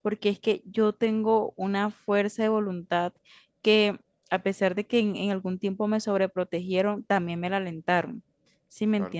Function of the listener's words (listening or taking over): taking over